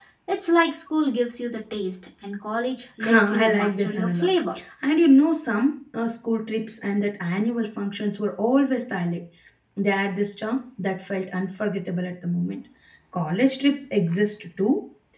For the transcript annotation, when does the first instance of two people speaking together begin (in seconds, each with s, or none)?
3.0 s